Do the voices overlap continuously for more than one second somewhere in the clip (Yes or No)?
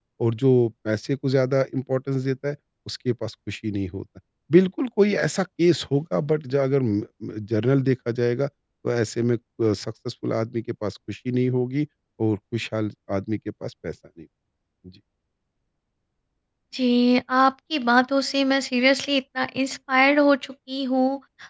No